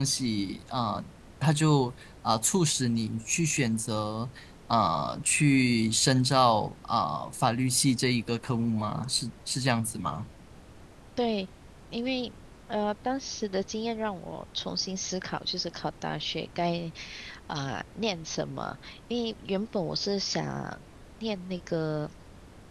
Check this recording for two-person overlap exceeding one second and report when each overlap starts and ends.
none

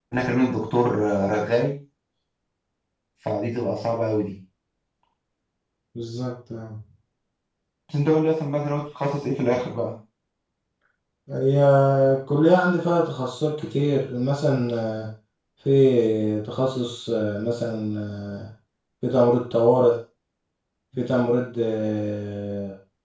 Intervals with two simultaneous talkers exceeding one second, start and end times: none

